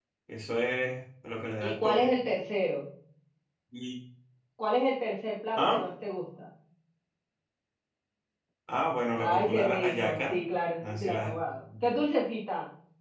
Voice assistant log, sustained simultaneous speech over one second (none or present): present